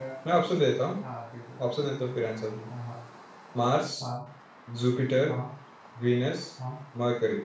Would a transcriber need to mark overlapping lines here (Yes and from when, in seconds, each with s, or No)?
No